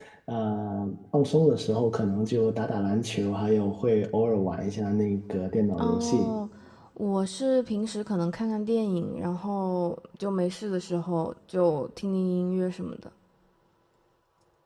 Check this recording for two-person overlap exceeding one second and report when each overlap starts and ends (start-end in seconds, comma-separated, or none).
none